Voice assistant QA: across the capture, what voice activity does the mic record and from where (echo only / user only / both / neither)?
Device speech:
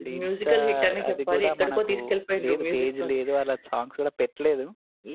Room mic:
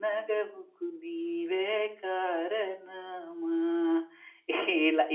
user only